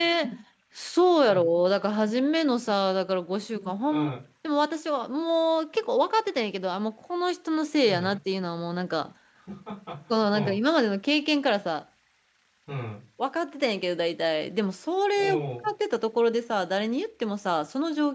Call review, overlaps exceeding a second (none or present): none